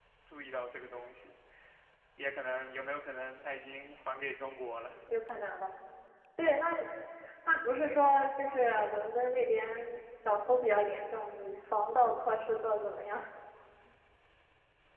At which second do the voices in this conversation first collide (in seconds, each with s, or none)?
none